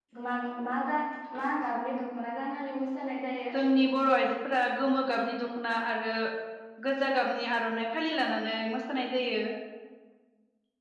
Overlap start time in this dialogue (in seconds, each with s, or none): none